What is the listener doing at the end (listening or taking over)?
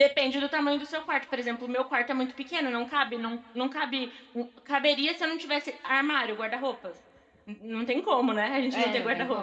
taking over